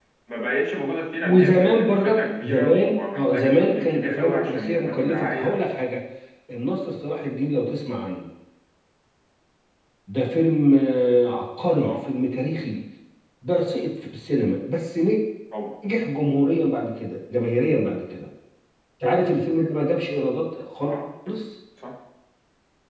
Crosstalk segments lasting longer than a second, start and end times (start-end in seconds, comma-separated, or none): 1.2-5.6